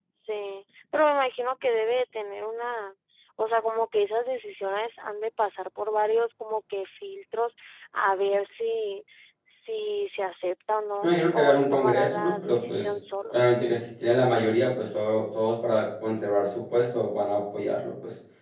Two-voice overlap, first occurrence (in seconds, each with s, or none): 11.0 s